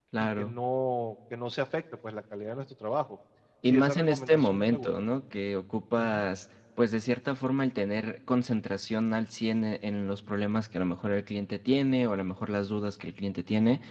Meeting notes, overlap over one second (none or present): present